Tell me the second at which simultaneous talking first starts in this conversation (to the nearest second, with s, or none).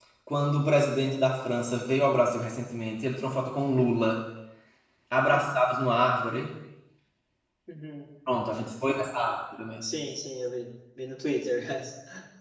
none